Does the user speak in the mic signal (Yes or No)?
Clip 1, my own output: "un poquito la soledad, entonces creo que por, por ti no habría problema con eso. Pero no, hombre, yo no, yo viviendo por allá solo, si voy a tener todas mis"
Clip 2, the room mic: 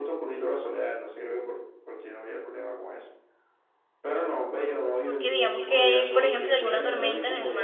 Yes